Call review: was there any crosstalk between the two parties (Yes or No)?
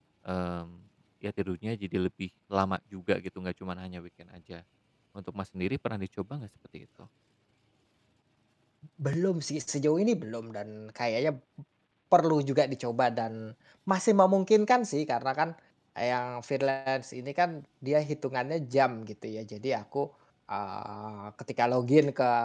No